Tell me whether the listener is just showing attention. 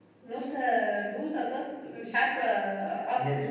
No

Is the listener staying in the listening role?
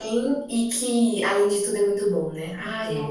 No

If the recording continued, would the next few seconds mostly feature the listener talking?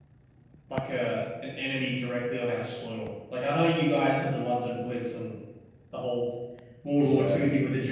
No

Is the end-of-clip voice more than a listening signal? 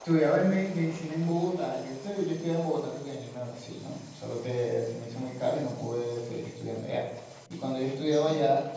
No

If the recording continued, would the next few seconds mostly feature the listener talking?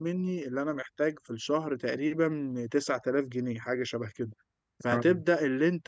No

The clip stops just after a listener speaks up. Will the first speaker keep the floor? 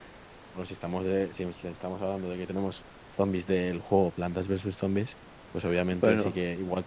Yes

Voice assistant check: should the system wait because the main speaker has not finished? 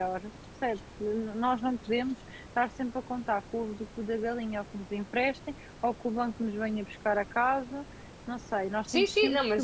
No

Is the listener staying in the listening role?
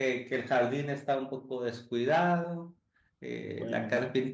Yes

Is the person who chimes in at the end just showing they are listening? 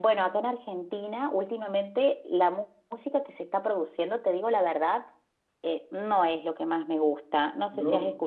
Yes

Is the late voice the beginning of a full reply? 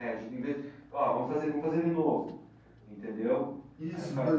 Yes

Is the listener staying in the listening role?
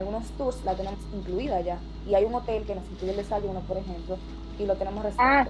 No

